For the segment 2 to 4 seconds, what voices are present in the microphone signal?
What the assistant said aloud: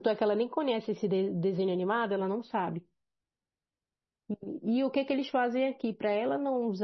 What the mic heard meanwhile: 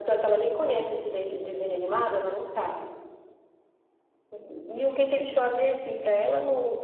echo only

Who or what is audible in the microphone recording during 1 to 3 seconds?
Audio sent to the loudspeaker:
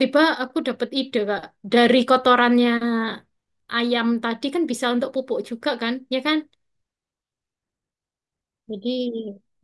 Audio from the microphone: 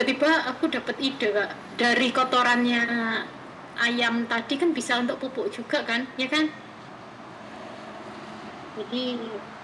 echo only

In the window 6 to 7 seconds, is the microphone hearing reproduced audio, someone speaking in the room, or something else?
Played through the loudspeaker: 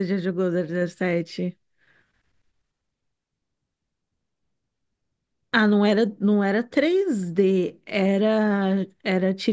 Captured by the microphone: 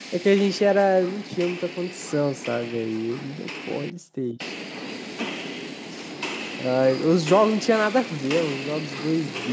user only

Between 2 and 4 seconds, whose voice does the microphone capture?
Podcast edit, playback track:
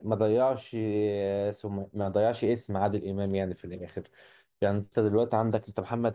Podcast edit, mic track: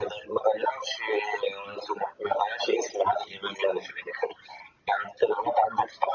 echo only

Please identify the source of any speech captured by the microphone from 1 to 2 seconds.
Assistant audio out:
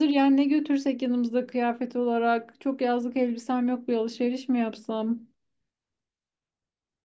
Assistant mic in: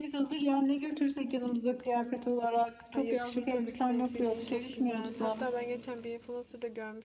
echo only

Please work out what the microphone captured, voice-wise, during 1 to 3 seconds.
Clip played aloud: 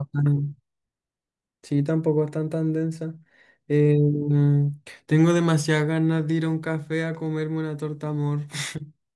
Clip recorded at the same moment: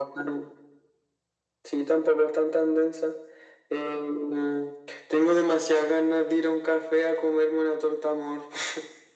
echo only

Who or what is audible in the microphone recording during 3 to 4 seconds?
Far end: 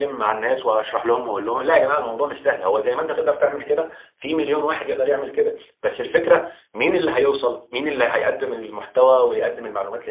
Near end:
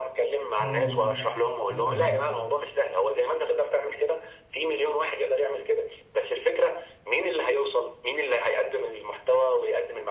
echo only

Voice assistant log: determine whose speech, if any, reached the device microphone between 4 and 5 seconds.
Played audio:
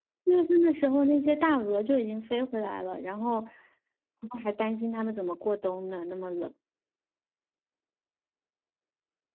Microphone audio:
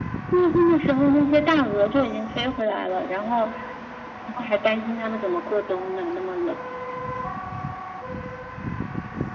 echo only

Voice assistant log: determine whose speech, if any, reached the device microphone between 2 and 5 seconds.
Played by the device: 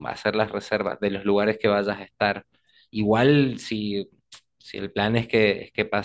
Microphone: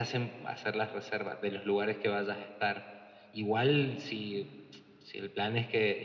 echo only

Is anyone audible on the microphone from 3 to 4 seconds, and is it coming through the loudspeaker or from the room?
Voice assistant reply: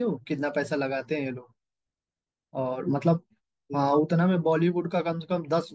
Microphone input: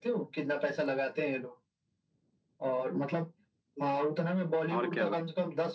echo only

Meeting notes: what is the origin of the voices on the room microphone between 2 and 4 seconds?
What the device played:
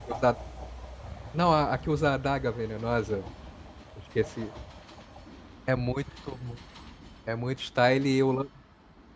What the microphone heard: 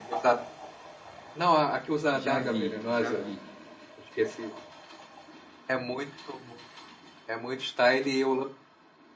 both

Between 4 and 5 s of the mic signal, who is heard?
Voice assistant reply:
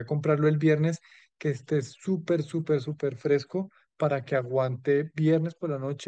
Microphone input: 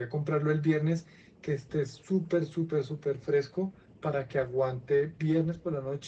echo only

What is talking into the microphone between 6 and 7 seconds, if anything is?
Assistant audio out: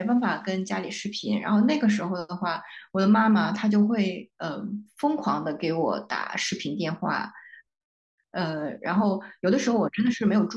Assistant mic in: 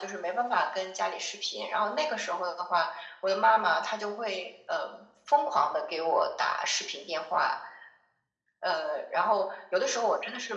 echo only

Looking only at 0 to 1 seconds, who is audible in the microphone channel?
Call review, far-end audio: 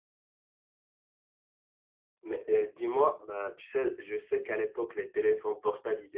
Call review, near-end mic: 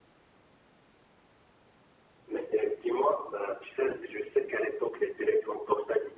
neither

